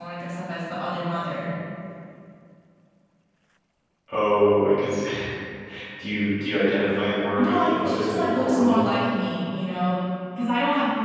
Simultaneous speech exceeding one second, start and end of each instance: 7.4-8.9

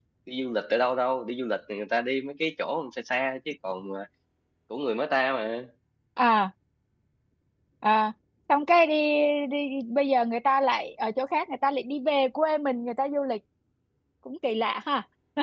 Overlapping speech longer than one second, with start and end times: none

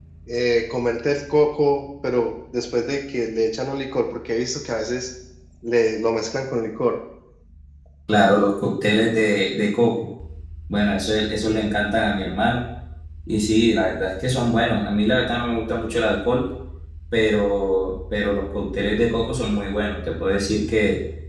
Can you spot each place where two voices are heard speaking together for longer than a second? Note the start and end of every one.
none

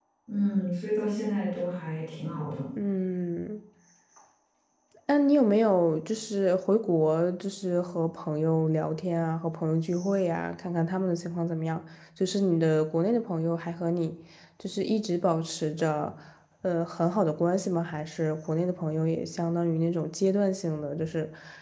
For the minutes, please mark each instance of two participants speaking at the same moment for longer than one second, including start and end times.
none

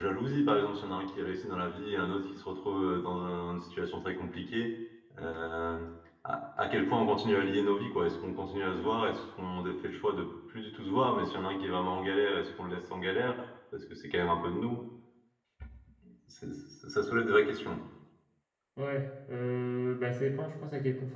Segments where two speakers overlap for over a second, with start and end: none

